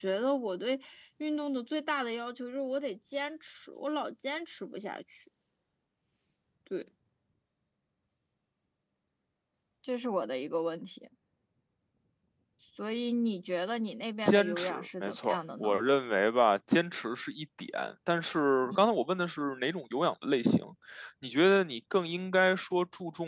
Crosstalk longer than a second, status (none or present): present